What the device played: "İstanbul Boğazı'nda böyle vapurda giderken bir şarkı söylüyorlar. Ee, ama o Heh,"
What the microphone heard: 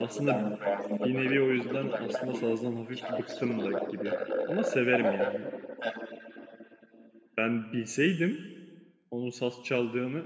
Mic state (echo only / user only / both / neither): both